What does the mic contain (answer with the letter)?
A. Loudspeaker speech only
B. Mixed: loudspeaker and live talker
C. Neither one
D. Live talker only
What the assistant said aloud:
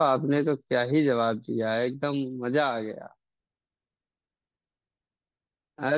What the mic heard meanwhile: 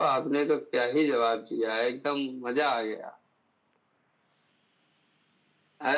A